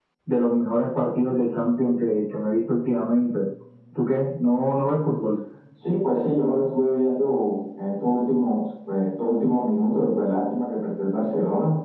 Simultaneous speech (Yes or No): No